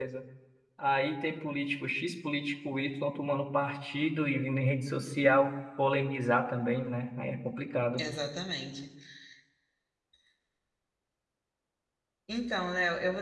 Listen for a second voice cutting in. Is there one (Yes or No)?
No